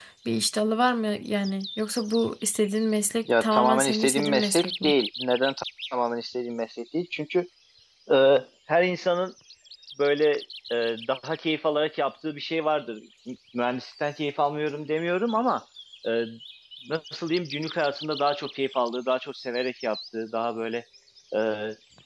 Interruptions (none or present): present